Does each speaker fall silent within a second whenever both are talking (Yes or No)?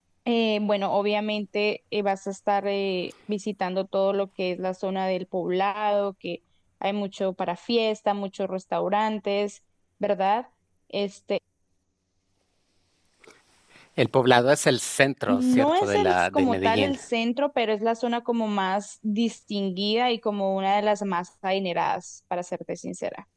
No